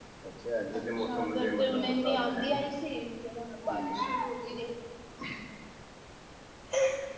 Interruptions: present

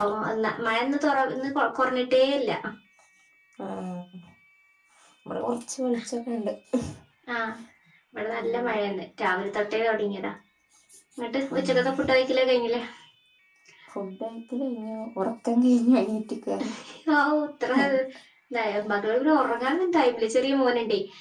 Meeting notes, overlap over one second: none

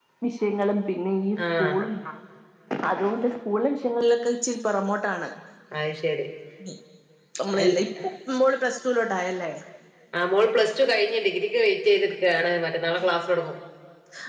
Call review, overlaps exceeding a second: none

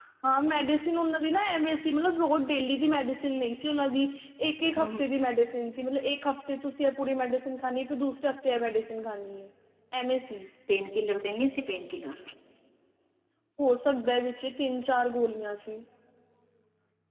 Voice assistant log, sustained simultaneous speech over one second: none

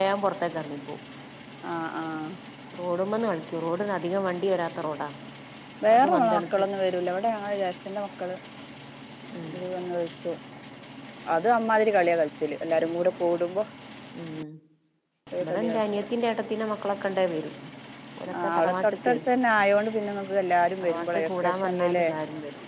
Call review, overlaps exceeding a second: present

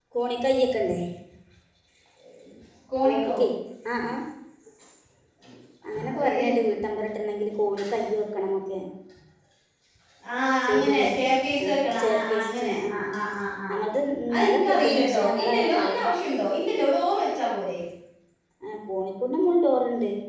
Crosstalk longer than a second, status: present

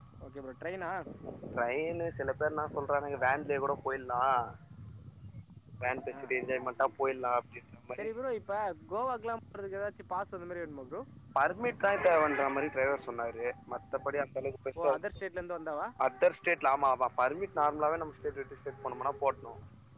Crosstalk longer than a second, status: none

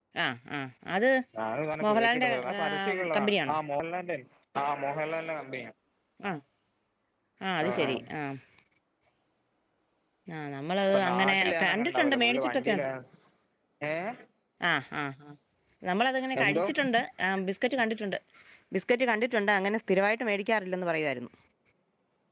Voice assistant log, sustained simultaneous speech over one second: present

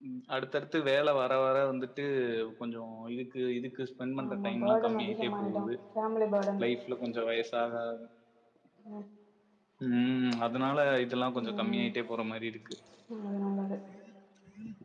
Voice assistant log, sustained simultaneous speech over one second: present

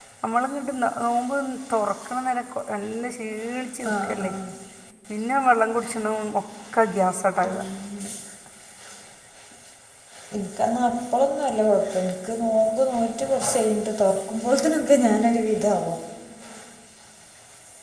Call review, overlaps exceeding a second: none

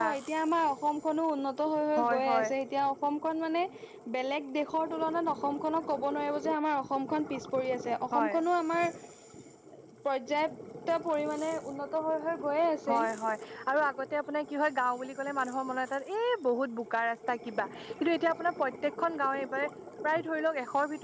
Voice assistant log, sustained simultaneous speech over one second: none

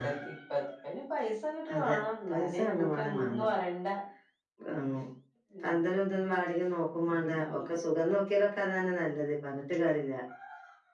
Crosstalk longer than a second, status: present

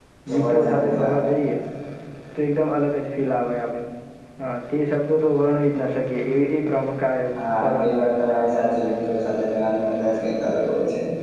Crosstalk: present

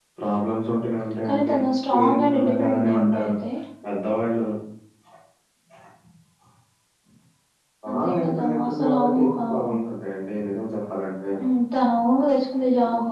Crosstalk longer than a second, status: present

